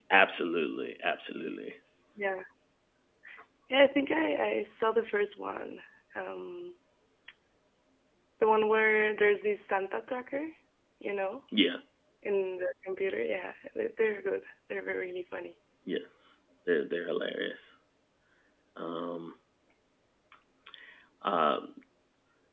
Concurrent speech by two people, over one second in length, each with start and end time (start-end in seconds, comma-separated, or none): none